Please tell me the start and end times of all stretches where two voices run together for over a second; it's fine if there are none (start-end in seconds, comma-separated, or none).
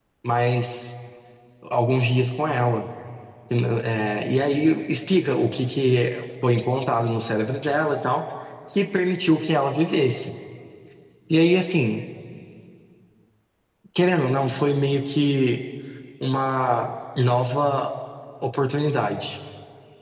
none